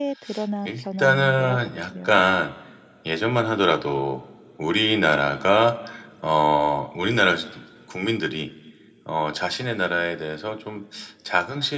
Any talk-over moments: Yes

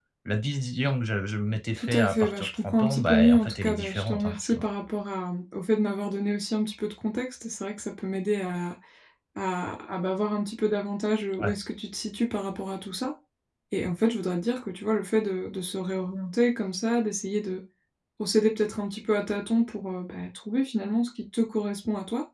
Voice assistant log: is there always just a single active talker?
No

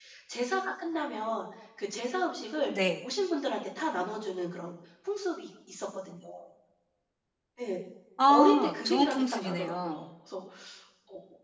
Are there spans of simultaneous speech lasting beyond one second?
Yes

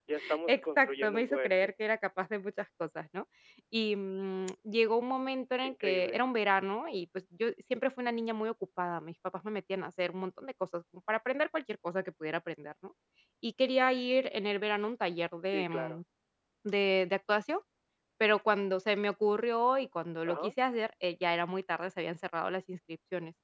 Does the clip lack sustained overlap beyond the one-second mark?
No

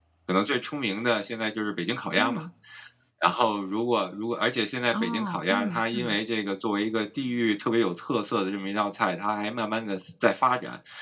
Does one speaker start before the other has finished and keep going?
Yes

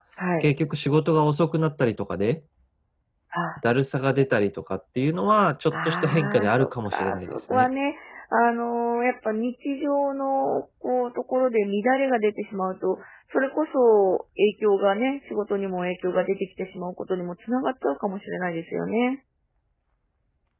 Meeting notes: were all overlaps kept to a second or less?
No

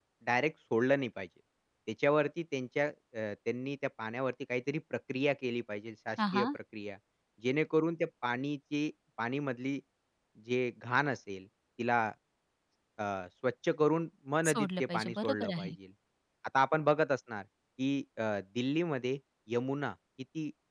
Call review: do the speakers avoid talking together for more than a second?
No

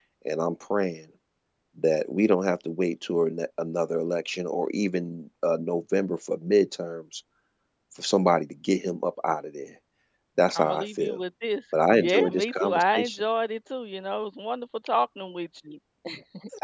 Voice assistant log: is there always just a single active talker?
No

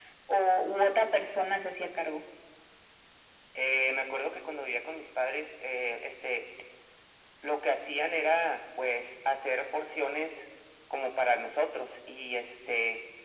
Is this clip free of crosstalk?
Yes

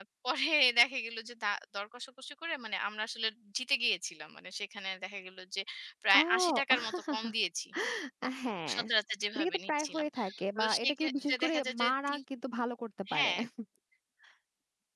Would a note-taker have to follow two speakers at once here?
Yes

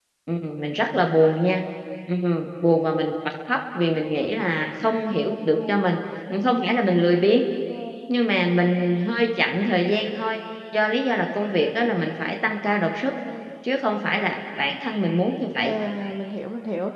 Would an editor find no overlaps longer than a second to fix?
Yes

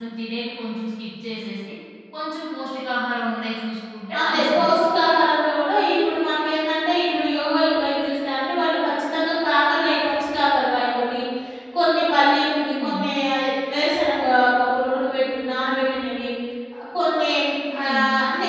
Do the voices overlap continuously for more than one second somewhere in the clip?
No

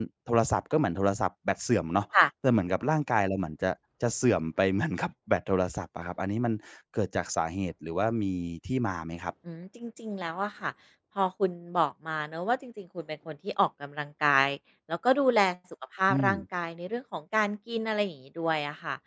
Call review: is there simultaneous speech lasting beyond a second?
No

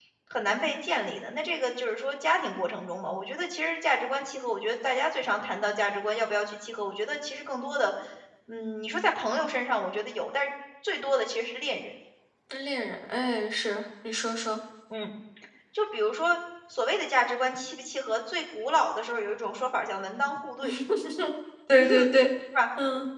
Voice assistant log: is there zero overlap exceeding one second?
Yes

